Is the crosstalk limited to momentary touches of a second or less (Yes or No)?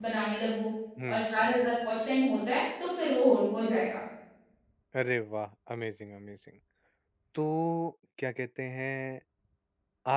Yes